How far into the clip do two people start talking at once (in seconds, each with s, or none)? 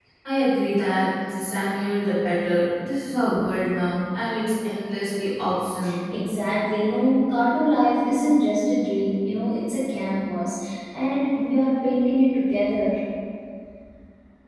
none